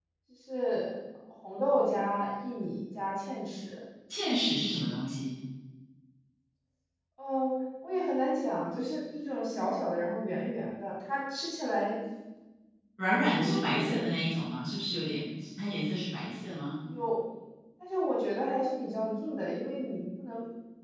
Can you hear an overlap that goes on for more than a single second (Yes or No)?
No